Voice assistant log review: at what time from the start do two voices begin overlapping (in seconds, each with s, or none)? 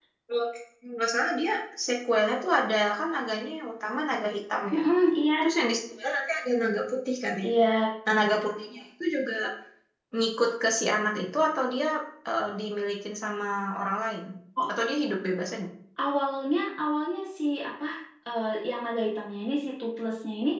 none